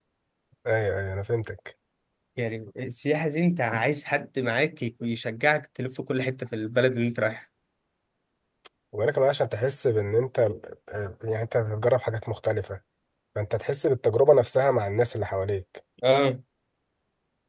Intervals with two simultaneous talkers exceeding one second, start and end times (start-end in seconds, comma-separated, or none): none